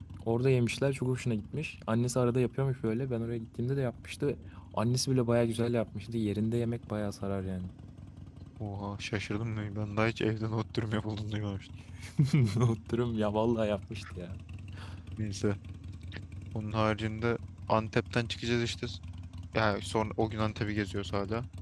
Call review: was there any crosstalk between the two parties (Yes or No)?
No